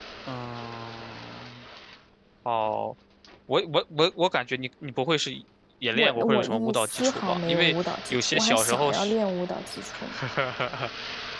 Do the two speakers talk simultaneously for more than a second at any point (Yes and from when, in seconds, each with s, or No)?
Yes, from 5.9 s